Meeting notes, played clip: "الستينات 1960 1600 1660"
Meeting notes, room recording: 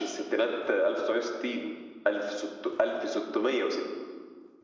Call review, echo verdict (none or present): present